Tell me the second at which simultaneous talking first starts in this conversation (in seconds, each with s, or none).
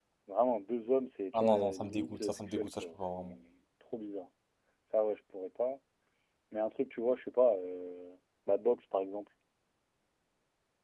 1.3 s